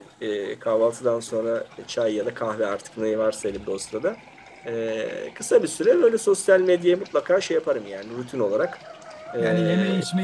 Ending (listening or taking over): taking over